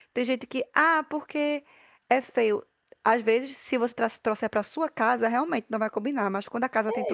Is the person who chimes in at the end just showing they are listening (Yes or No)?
No